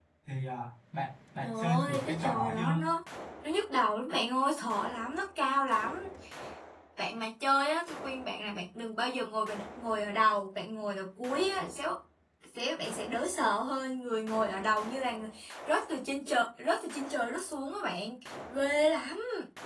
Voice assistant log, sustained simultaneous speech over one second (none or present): present